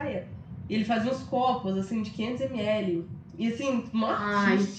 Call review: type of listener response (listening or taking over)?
listening